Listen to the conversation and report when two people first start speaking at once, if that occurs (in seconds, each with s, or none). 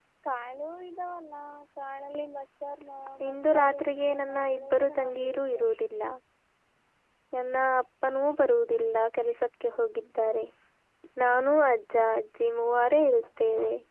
3.2 s